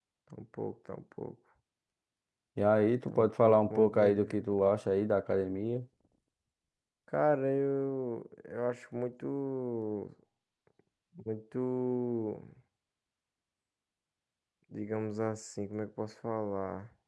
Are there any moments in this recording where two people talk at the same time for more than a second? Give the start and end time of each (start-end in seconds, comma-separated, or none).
3.1-4.3